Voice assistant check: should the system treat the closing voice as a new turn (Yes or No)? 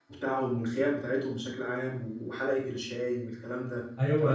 Yes